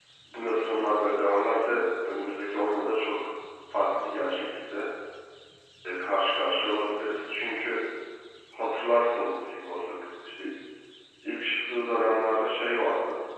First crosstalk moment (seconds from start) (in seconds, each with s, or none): none